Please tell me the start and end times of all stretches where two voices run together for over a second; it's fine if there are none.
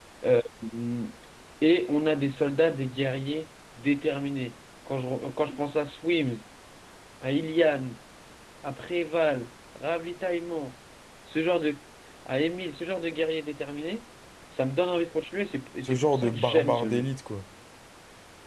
15.8-17.1

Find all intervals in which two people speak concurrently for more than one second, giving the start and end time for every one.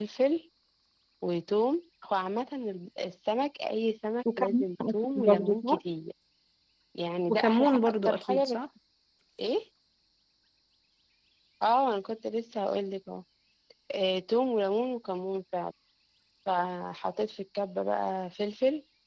4.4-5.8, 7.3-8.6

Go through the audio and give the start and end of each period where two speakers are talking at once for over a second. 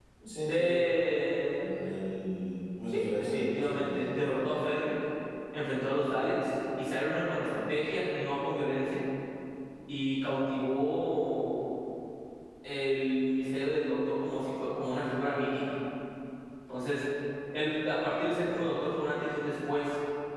2.9-4.6

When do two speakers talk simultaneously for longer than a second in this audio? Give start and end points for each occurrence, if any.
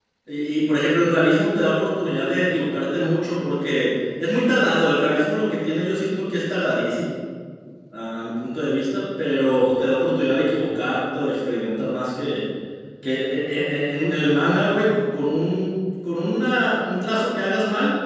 none

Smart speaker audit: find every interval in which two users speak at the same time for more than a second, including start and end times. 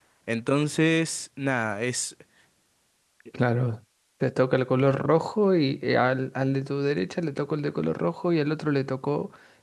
none

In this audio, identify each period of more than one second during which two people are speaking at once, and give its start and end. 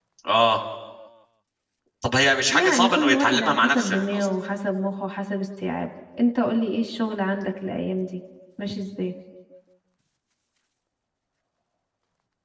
2.5-4.3

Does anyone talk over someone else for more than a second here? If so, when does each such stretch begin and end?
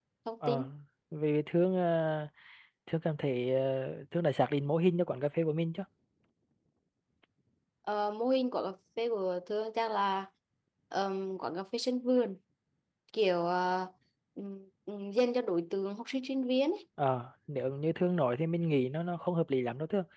none

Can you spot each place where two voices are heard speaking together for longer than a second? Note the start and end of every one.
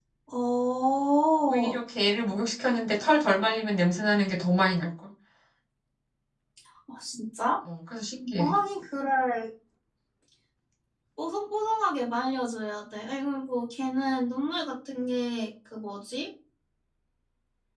none

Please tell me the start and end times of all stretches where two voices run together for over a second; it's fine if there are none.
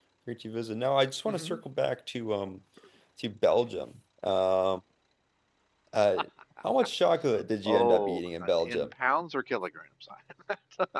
7.7-8.9

